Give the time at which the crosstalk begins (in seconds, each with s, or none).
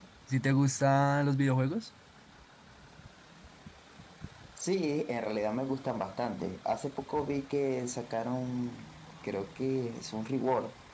none